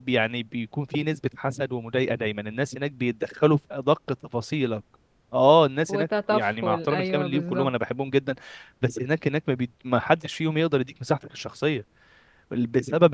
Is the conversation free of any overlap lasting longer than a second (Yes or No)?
No